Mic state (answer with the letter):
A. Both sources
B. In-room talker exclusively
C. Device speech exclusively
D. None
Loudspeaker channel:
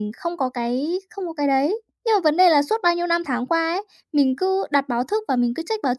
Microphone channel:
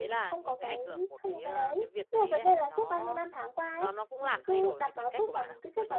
A